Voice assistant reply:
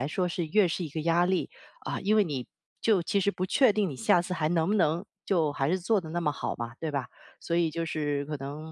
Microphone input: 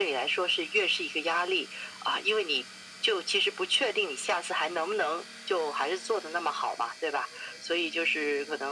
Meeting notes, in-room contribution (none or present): none